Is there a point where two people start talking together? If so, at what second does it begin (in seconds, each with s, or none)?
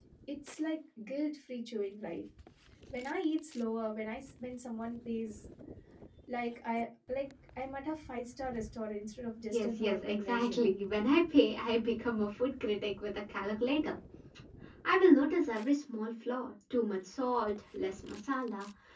9.5 s